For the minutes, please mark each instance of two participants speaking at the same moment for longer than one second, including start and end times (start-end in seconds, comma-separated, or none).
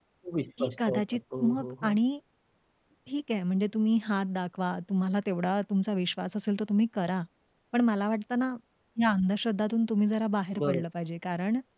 0.6-2.0